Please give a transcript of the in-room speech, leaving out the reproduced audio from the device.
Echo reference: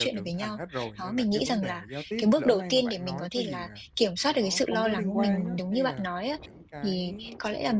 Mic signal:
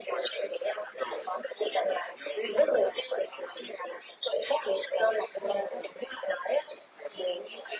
none

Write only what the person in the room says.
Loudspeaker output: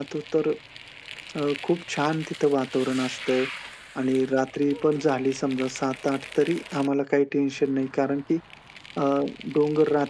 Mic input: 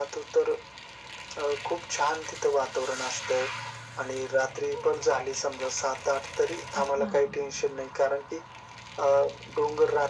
अच्छा.

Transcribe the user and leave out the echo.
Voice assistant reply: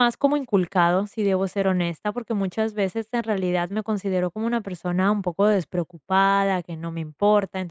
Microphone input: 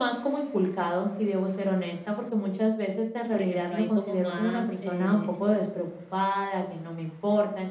Por ejemplo, hay como más, eh,

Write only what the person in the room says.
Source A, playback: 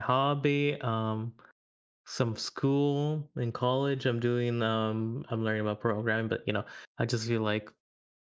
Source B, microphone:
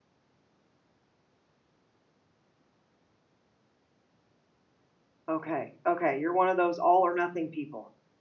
okay, okay, you're one of those all or nothing people.

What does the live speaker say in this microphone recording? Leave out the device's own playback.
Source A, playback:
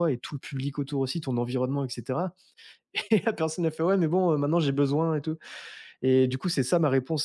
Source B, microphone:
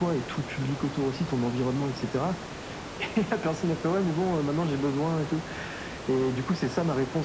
none

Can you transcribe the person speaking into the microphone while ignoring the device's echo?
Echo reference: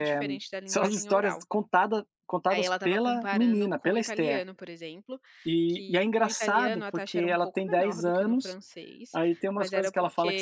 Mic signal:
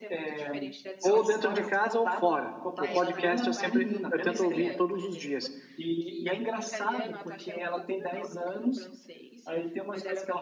ou dentro de casa ou fora. O podcast eu sempre eu tento ouvir todos os dias.

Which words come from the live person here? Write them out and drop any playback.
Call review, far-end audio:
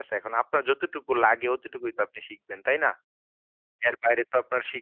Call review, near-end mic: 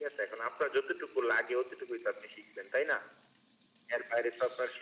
none

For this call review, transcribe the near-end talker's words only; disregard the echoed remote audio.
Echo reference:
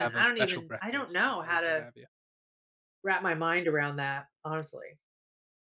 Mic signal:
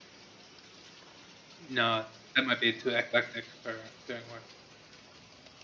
No, that might be too eclectic for doing work.

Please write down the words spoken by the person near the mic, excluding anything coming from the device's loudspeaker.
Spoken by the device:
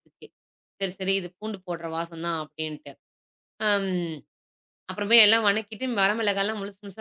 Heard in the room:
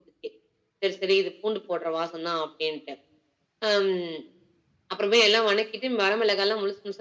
none

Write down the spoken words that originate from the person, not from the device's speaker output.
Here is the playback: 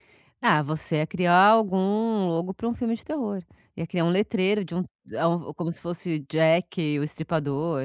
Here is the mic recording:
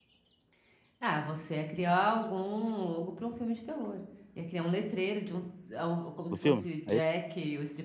do filme, é isso?

